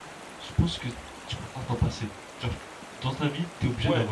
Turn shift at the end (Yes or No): Yes